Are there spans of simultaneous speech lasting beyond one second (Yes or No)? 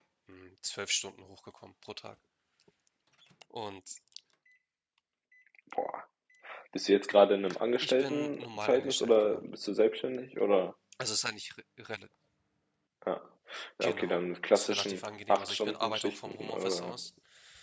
Yes